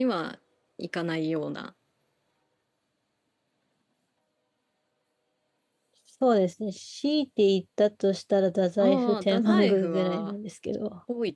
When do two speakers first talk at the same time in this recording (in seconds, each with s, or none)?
8.8 s